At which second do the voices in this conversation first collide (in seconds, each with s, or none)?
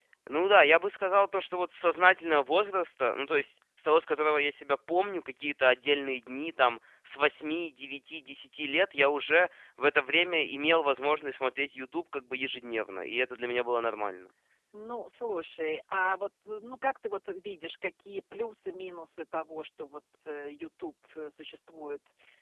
none